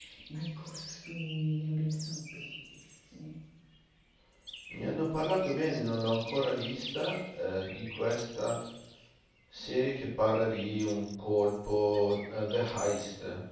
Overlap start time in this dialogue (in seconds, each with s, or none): none